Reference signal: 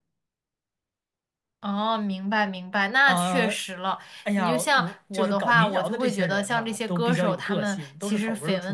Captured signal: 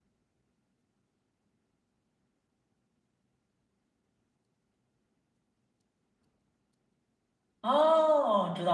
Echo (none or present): none